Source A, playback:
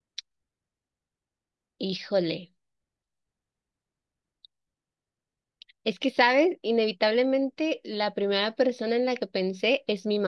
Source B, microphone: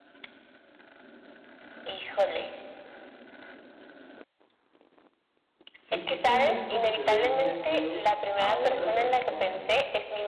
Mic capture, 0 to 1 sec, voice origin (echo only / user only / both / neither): neither